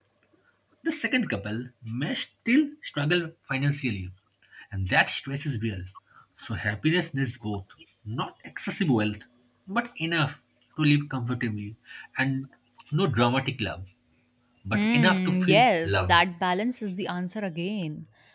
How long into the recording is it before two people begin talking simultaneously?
14.7 s

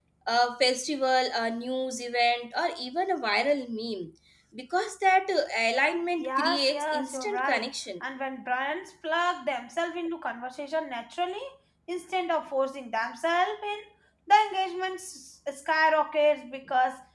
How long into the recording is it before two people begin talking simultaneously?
6.2 s

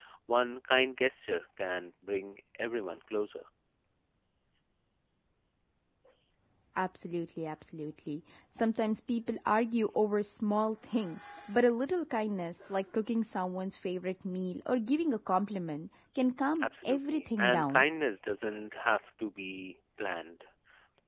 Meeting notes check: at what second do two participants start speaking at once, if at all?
16.6 s

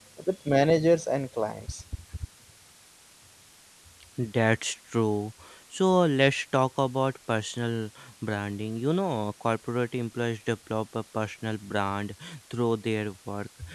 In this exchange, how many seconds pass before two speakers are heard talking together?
none

